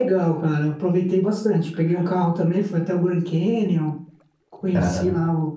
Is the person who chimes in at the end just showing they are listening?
Yes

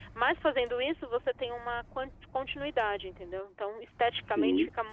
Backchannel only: No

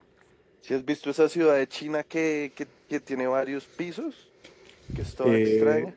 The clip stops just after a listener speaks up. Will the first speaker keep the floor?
No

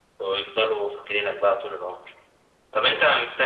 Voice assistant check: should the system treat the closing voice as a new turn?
No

